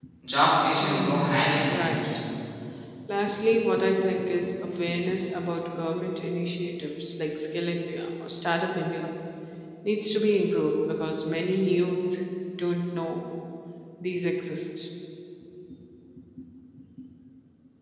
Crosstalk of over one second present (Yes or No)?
Yes